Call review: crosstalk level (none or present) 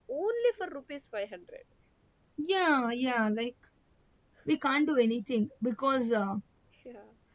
none